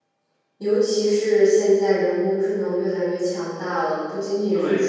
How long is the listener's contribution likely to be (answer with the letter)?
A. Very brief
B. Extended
B